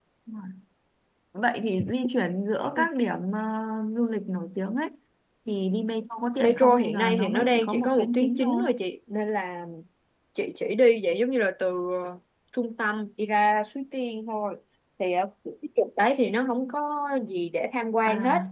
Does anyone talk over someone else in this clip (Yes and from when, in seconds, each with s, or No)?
Yes, from 6.4 s